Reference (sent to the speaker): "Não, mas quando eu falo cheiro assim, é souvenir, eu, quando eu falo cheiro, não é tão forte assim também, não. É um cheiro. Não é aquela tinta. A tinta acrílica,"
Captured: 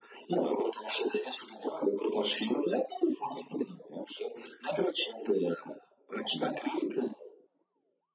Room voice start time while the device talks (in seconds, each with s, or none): none